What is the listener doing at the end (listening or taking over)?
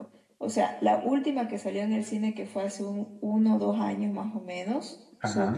listening